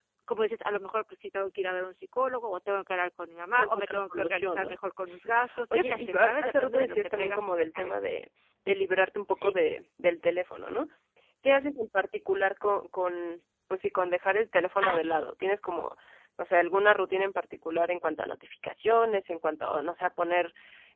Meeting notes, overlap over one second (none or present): present